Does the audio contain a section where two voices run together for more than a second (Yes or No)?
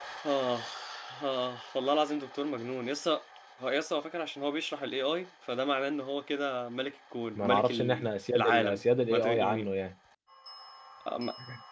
Yes